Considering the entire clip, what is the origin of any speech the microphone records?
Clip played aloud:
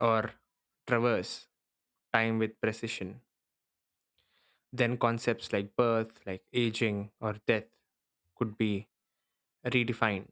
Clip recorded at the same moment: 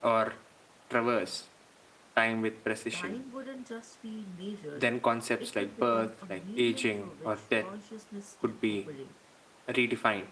both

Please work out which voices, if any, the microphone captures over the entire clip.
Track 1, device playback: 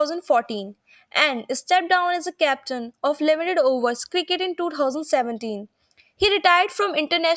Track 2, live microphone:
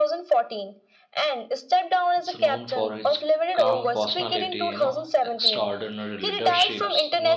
both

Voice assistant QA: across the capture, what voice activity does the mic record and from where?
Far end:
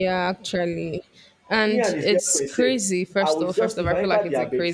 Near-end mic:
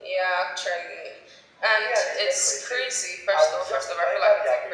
echo only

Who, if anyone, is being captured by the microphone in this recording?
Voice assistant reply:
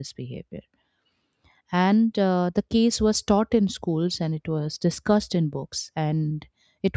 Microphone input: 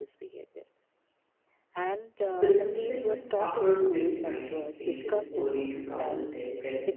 both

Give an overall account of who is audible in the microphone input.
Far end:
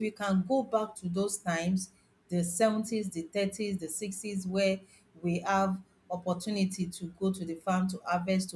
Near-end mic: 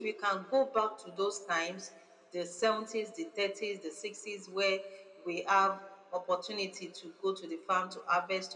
echo only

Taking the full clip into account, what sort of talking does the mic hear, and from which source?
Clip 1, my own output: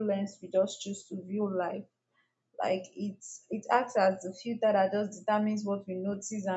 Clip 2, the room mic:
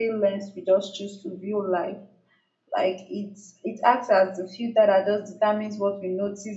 echo only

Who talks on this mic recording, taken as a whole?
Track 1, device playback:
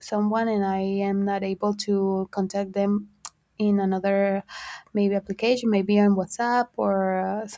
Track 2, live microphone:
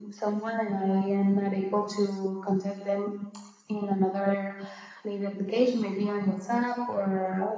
echo only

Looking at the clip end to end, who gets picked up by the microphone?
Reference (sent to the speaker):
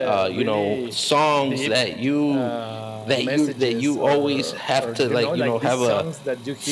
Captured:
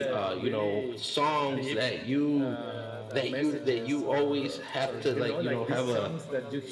both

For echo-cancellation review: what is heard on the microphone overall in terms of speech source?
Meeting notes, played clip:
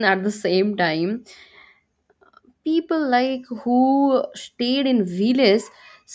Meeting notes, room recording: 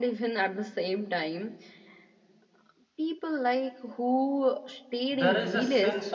both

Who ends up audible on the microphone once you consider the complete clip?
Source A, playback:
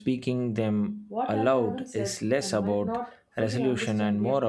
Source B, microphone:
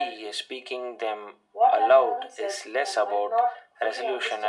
echo only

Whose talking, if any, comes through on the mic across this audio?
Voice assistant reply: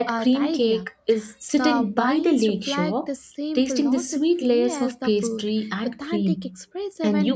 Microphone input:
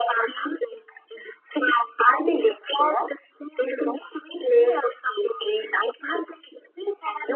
echo only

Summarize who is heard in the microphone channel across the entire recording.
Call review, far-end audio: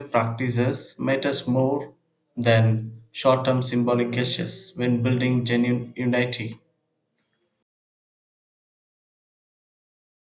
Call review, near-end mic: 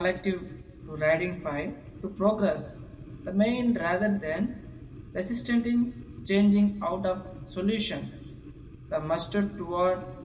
user only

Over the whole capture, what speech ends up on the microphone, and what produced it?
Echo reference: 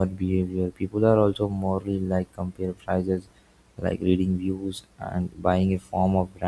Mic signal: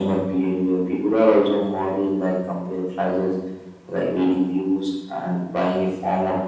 echo only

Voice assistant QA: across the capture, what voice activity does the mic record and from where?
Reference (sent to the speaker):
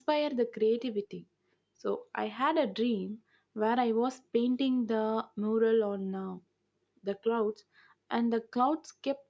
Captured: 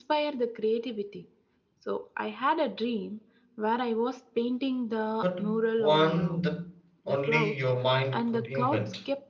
both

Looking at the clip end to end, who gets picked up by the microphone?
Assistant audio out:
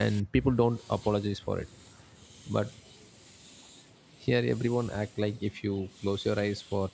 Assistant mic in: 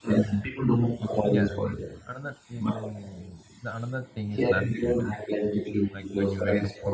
both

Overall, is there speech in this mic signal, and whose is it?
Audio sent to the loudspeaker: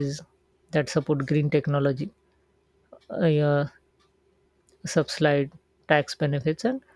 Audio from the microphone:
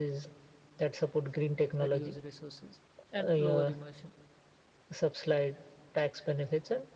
both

